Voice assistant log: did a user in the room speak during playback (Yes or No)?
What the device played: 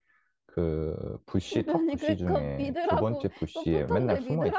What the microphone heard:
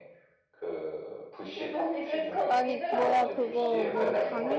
Yes